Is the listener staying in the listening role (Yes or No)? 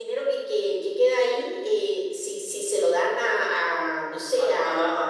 No